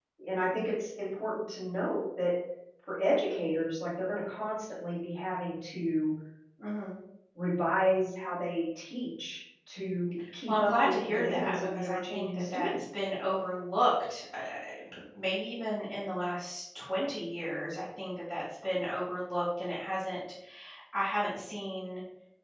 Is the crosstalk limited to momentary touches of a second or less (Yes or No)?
No